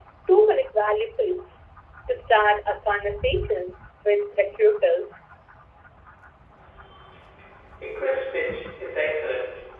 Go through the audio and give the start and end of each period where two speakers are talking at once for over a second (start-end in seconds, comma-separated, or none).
none